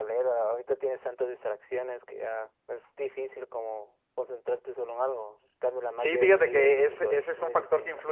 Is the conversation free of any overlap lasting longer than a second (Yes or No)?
No